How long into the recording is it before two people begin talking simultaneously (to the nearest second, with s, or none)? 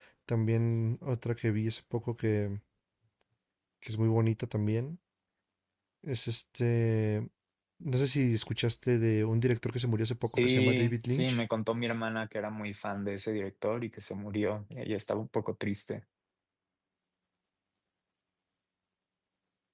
10 s